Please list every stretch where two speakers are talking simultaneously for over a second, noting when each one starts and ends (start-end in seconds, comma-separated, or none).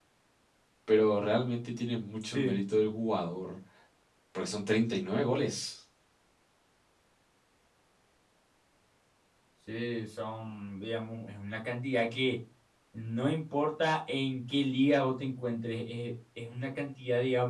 none